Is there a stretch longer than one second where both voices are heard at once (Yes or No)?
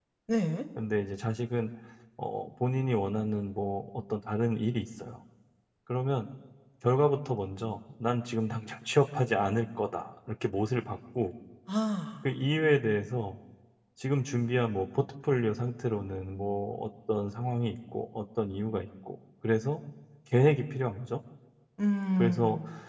No